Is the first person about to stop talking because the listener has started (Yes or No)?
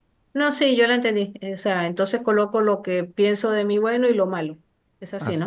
Yes